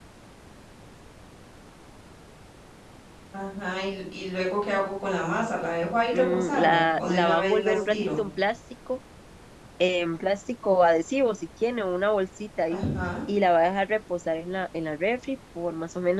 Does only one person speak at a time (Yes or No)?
No